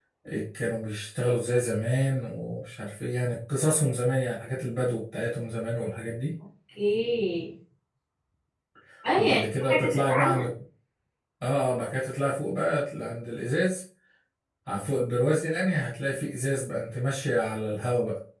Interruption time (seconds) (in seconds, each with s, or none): 9.2 s